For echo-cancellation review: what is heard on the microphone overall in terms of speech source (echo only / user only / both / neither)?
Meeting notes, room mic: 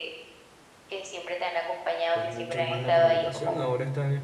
both